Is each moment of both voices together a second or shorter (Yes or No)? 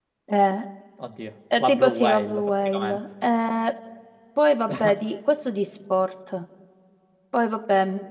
No